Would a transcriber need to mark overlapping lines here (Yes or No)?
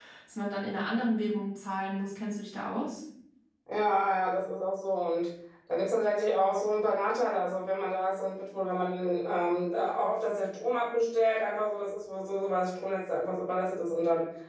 No